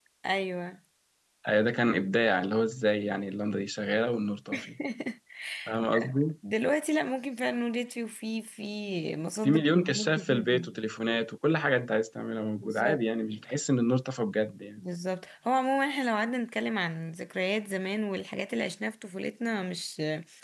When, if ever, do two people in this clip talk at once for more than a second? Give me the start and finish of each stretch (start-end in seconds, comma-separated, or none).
9.4-10.7